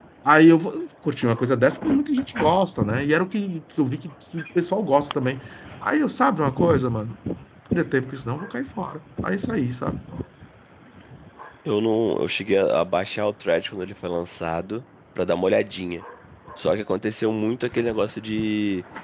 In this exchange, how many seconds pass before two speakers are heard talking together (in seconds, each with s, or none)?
none